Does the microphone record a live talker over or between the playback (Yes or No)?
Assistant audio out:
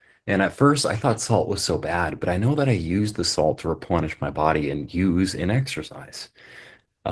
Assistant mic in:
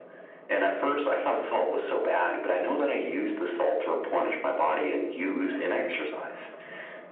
No